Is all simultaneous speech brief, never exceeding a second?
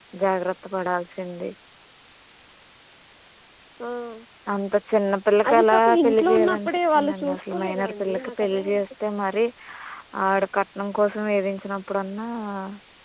No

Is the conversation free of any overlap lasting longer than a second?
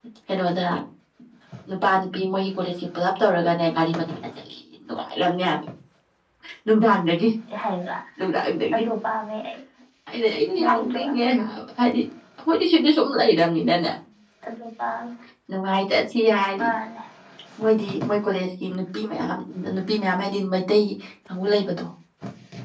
Yes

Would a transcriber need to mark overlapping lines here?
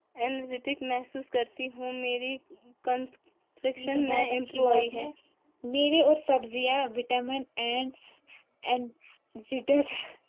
Yes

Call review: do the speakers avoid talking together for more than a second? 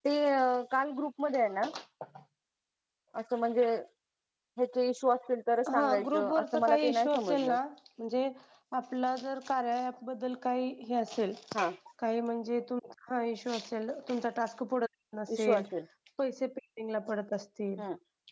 No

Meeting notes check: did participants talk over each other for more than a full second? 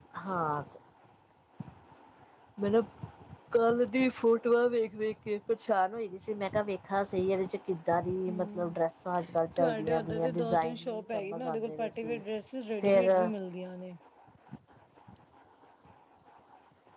Yes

